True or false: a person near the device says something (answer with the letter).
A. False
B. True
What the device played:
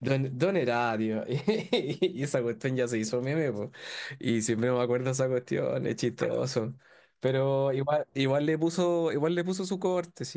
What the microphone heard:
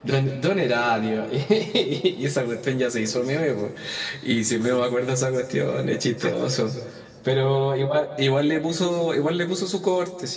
A